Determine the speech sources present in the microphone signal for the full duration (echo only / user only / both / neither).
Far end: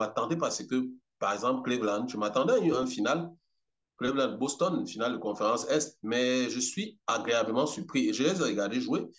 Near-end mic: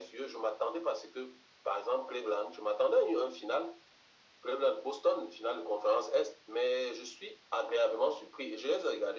echo only